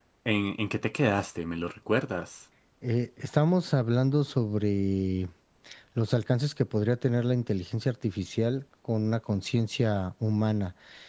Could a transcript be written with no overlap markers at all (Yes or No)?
Yes